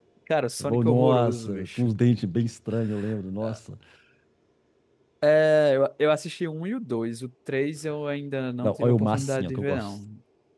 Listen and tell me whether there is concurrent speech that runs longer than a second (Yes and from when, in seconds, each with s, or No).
Yes, from 0.6 s